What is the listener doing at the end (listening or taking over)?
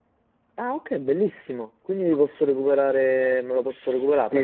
taking over